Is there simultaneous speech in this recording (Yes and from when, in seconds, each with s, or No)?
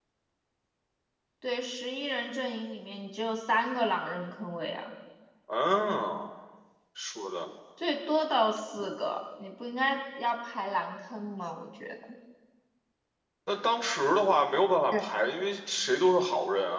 No